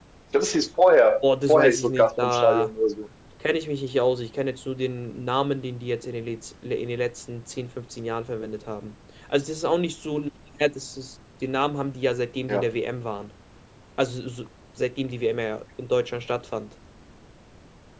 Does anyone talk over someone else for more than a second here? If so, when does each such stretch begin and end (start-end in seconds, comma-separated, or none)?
1.5-2.7